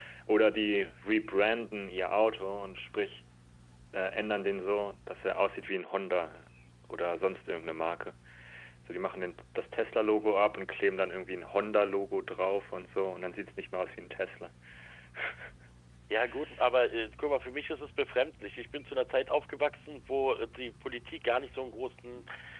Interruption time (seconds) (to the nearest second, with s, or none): none